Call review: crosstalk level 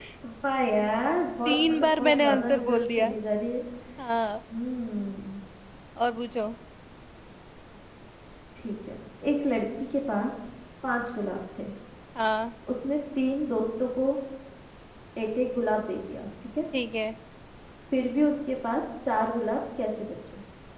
present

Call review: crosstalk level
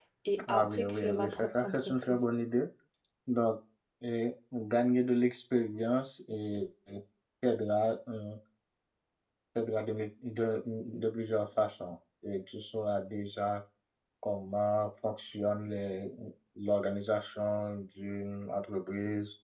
present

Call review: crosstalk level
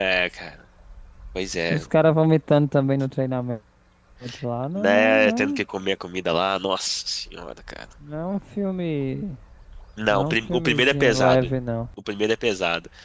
present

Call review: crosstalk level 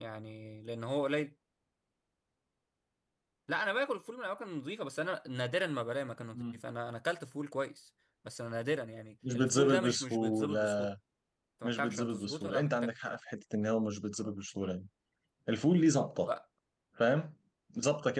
present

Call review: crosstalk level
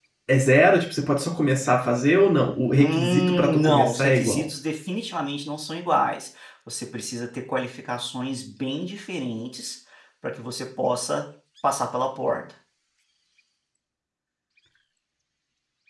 present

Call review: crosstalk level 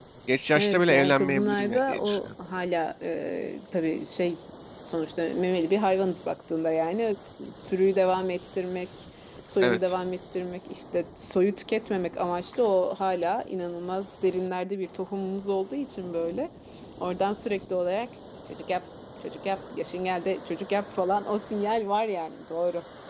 present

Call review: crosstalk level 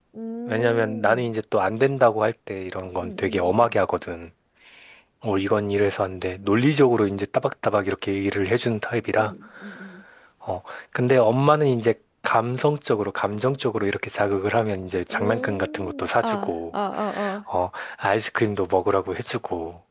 present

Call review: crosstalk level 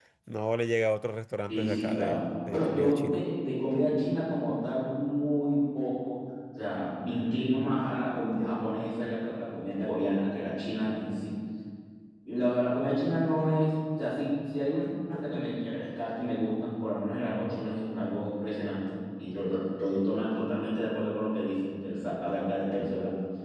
present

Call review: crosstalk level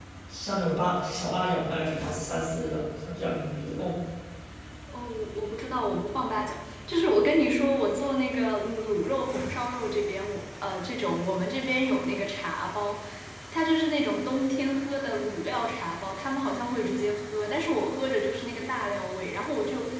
none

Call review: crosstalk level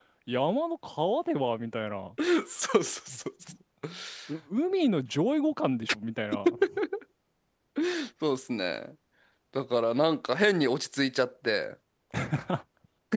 none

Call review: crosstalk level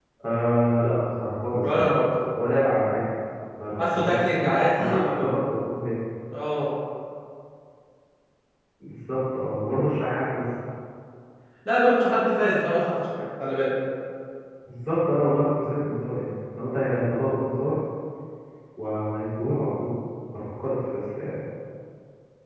present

